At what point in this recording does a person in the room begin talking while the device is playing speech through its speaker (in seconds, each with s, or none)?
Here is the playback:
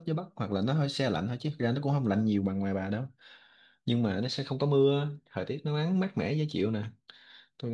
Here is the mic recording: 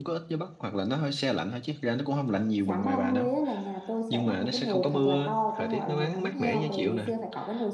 2.6 s